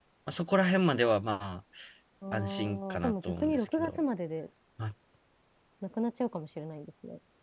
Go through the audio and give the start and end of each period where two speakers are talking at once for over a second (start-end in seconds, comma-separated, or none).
2.3-4.0